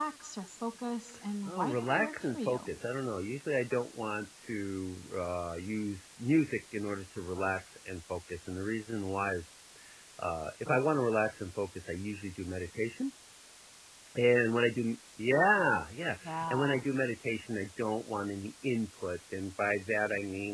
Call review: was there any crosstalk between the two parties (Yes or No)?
Yes